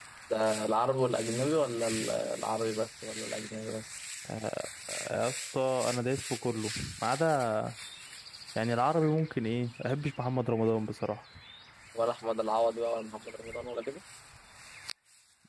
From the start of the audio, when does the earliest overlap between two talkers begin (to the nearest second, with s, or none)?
none